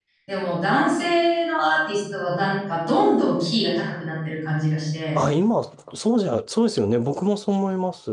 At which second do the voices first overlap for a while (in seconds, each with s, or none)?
none